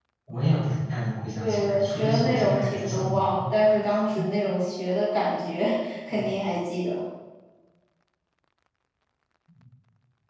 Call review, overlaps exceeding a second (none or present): present